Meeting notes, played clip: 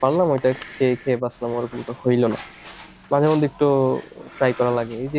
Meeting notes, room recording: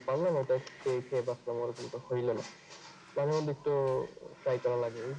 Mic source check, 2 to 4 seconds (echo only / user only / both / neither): echo only